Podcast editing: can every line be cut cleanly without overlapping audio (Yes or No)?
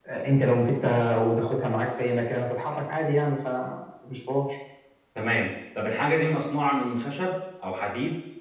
Yes